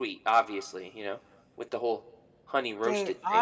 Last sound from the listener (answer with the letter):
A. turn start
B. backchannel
A